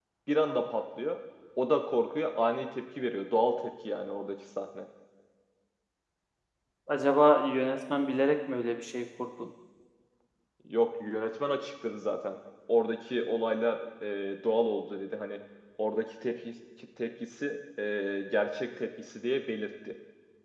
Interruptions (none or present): none